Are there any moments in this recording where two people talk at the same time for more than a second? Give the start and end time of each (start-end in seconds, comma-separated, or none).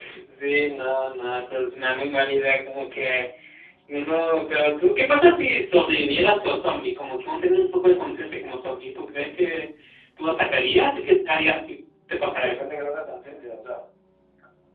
none